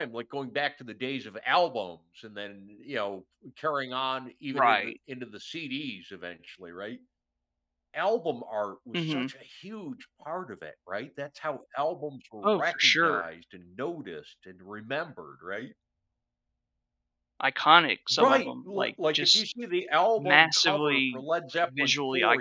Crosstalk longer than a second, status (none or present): present